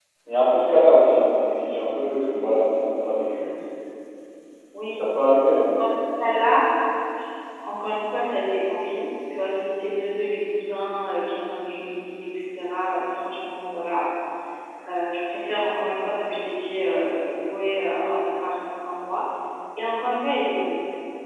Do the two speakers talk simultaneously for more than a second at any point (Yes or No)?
No